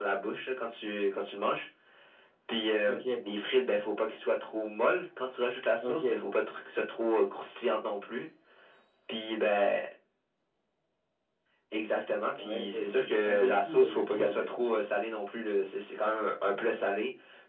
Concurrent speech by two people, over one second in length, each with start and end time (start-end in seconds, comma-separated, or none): 12.4-14.5